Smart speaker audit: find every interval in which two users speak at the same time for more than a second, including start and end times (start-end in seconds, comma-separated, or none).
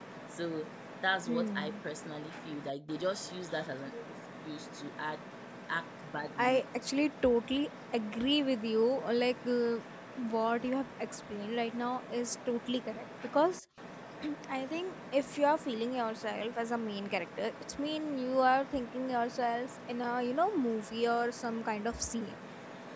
none